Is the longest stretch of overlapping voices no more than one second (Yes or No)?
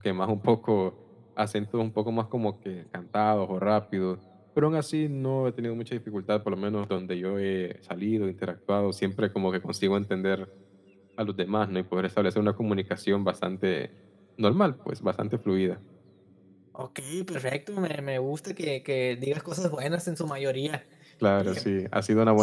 Yes